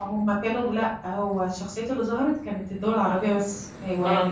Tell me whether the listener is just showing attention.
Yes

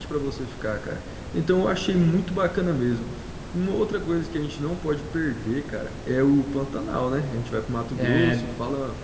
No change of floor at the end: Yes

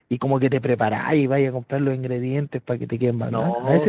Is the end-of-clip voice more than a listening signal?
Yes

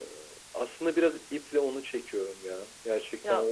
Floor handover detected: No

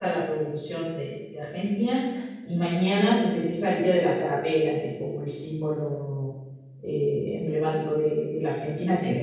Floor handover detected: No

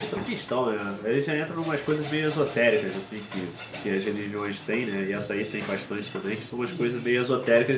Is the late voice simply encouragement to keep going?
Yes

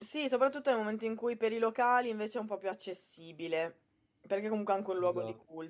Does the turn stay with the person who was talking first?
Yes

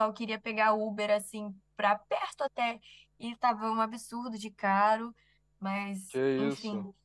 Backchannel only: Yes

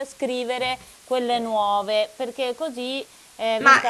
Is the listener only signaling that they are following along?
No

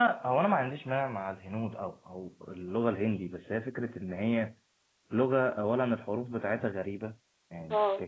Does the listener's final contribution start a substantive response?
No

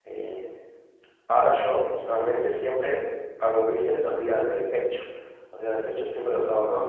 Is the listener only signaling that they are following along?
Yes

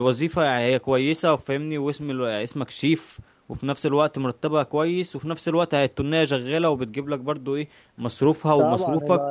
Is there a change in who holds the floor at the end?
Yes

